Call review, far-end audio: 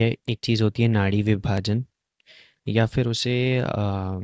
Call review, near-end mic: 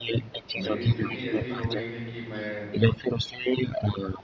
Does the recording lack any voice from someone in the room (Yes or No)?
No